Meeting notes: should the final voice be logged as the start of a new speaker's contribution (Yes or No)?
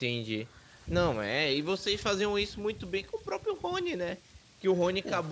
No